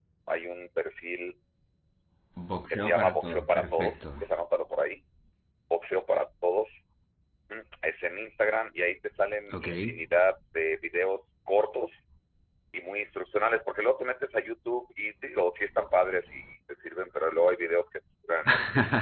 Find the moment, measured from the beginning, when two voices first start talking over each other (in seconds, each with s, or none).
2.7 s